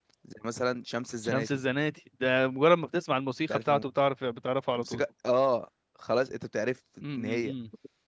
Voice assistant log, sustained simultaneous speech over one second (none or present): none